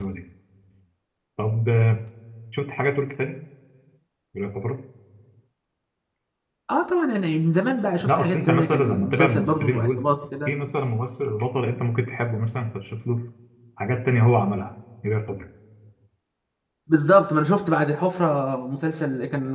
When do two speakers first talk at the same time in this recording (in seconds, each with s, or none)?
8.0 s